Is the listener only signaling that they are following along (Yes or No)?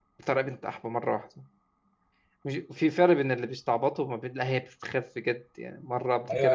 No